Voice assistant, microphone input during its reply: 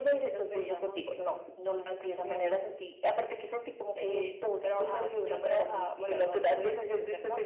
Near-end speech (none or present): none